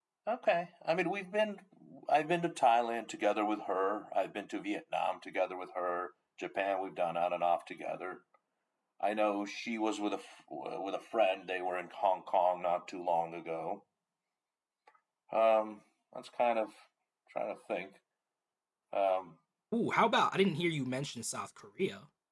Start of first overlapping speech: none

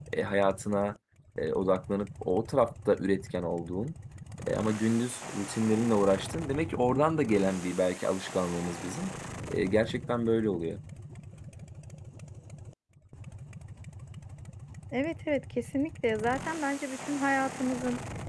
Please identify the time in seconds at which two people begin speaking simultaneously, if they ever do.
none

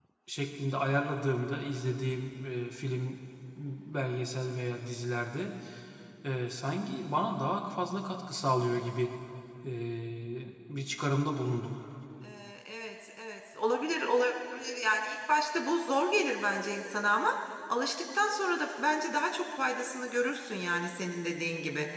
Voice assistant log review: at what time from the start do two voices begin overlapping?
none

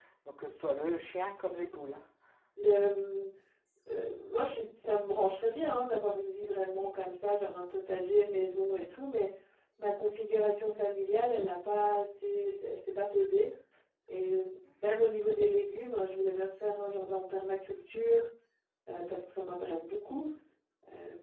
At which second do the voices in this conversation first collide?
none

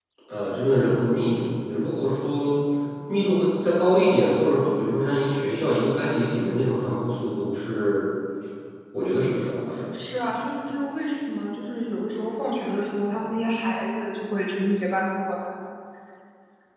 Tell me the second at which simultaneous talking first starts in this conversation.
none

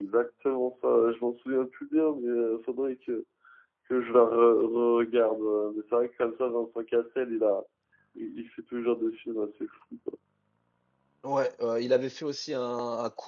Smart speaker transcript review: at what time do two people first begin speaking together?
none

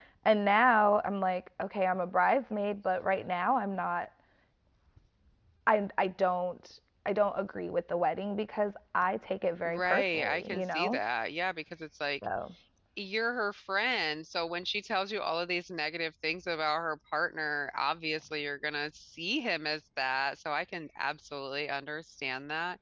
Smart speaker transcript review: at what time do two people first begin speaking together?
9.6 s

